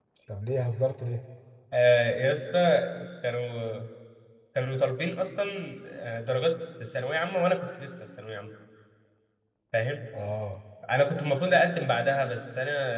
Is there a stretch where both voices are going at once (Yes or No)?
No